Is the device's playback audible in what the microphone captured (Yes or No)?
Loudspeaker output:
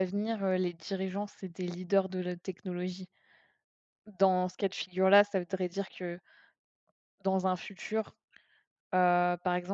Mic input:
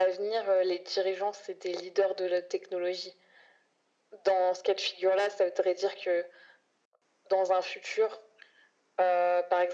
Yes